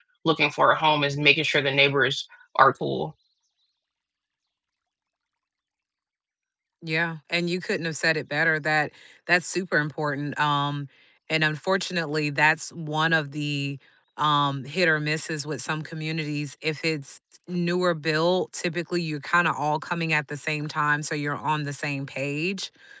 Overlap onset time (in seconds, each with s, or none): none